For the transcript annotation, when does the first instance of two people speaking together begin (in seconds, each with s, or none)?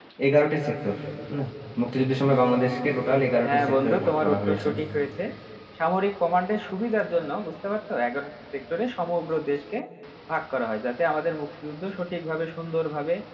3.4 s